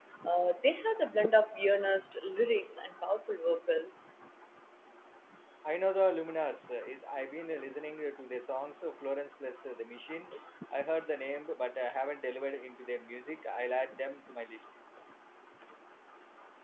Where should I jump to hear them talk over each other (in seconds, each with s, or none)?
none